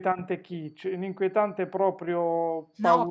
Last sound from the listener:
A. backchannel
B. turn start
B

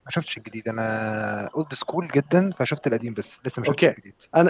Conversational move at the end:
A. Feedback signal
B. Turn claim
B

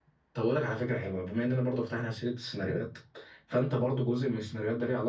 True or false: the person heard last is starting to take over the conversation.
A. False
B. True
A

